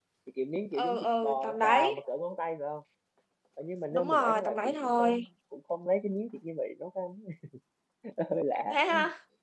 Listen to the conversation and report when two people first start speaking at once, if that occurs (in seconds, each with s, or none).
0.8 s